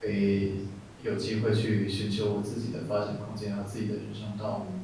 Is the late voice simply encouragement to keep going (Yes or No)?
No